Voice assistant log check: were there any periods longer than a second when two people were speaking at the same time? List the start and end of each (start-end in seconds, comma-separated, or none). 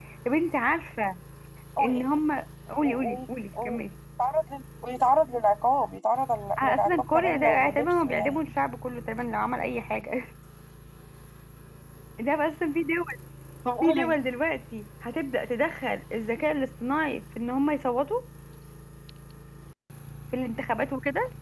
6.6-8.4